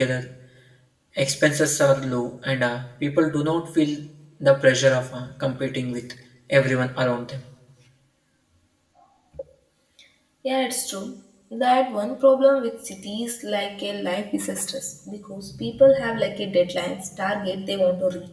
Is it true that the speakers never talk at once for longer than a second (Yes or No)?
Yes